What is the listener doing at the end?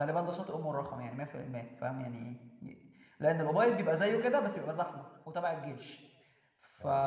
listening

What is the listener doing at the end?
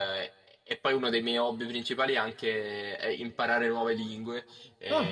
listening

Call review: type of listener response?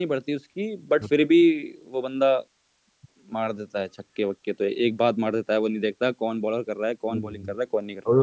taking over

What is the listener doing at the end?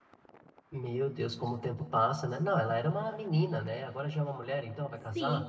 taking over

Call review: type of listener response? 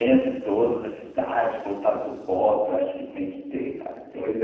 taking over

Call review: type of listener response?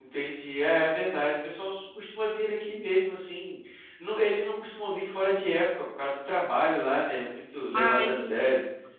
listening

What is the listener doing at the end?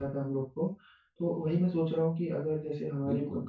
listening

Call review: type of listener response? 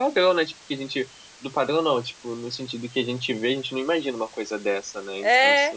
taking over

